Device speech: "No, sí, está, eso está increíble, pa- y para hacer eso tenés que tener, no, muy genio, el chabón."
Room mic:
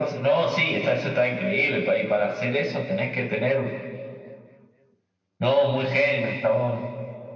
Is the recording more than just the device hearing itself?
No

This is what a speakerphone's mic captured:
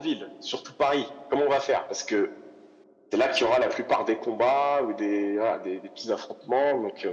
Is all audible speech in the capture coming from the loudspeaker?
Yes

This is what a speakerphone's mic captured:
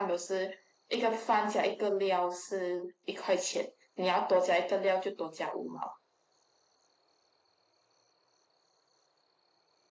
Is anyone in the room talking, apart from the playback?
No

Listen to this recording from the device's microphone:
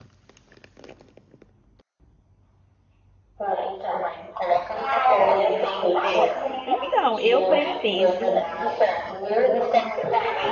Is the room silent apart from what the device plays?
No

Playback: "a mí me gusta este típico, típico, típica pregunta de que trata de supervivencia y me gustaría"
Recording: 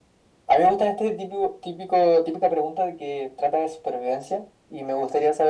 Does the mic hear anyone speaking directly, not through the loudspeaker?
No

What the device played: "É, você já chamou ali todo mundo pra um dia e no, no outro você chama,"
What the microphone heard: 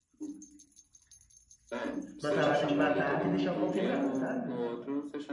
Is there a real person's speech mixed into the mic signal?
Yes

